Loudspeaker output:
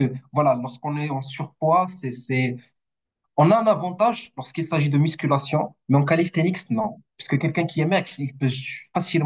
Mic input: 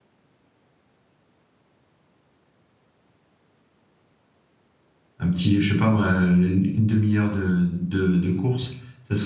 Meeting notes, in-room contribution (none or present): present